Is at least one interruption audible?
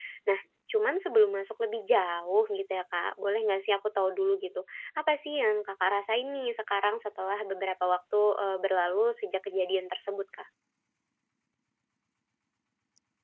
No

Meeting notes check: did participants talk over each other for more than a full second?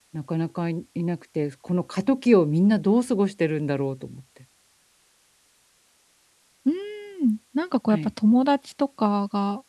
No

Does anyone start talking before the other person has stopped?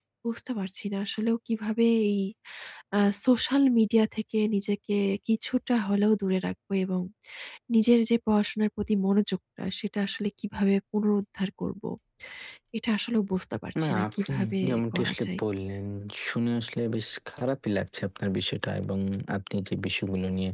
Yes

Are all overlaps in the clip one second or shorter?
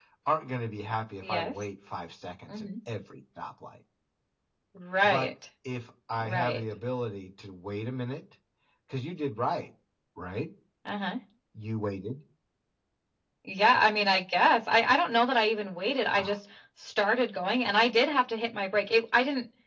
Yes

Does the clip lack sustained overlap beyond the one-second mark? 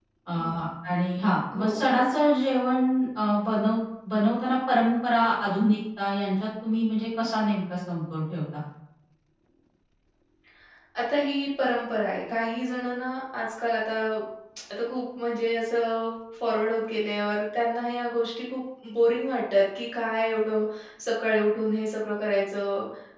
Yes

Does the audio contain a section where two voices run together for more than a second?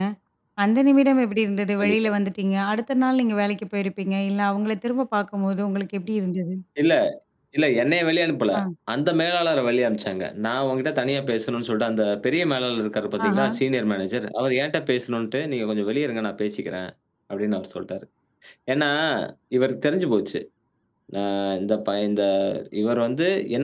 No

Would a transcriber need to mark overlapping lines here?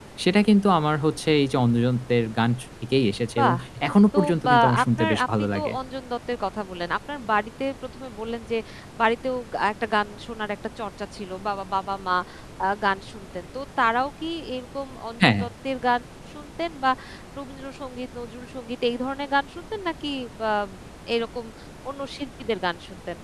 Yes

